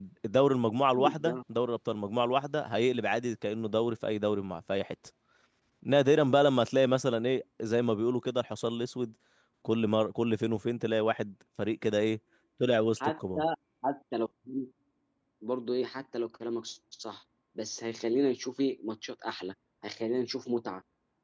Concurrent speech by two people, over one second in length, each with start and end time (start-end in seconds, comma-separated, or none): none